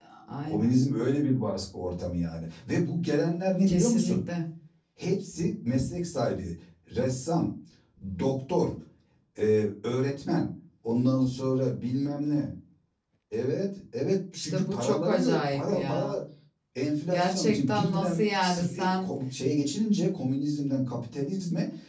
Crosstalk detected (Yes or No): Yes